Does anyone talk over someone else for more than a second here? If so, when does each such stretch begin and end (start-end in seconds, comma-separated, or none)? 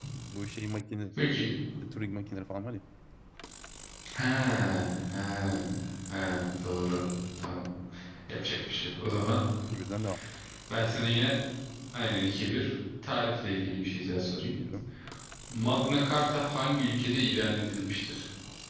none